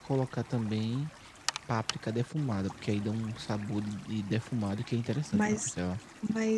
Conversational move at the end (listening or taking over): taking over